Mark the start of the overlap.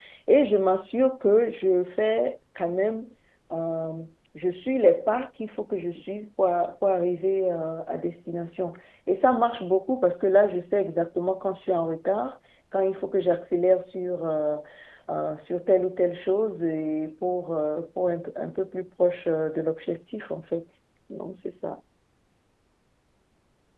none

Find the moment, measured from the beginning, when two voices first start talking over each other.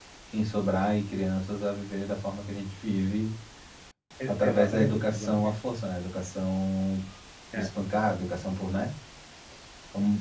4 s

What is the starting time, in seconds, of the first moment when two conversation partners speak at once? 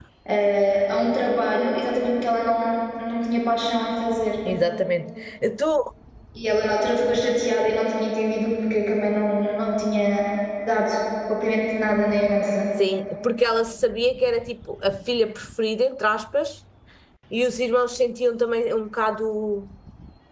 none

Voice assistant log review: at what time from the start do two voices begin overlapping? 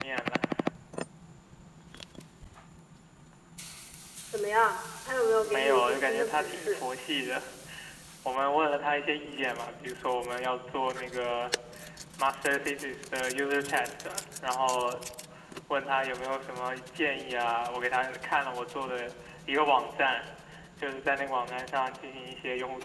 5 s

